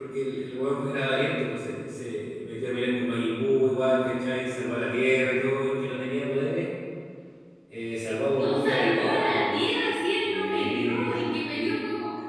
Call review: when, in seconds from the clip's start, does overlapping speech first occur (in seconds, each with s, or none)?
8.3 s